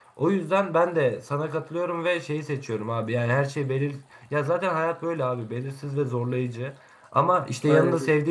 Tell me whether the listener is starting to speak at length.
No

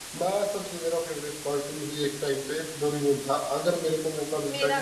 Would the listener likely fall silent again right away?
Yes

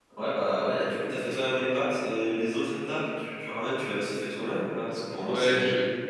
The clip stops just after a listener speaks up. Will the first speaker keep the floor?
Yes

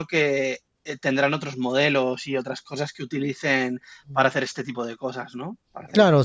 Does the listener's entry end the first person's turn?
Yes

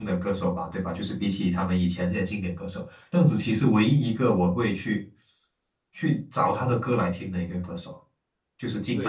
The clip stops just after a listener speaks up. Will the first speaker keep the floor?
No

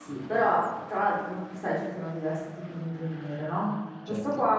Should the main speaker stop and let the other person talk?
No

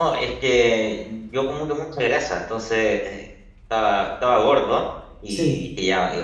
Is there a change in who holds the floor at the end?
No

